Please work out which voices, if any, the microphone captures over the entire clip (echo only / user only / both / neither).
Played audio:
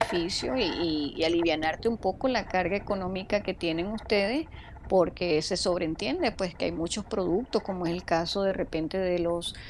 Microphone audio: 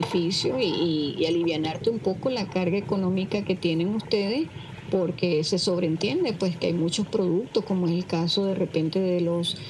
echo only